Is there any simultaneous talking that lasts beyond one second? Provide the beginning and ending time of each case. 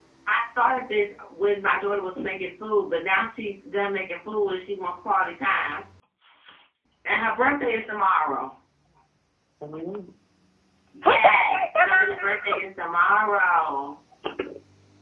11.0-12.6

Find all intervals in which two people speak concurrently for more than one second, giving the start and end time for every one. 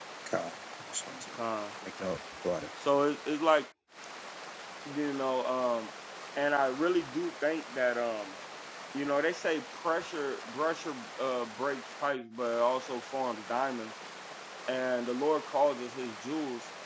none

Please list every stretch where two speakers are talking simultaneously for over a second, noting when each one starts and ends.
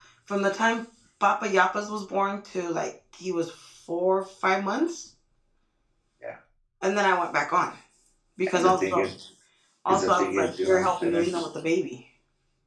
9.9-11.4

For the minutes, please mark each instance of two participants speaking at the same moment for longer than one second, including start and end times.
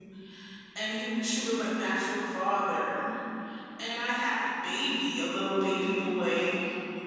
none

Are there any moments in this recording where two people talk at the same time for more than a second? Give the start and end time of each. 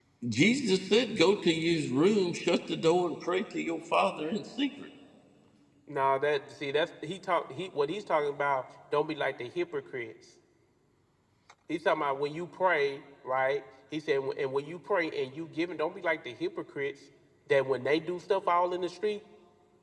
none

